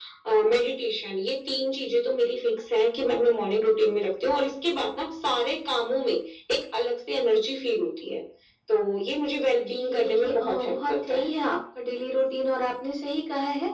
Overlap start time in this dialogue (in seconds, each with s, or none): 9.7 s